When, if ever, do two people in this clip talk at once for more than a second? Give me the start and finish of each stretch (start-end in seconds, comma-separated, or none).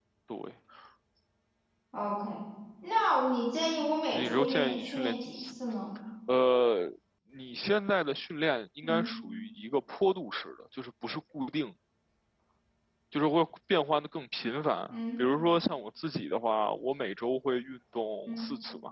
4.1-5.5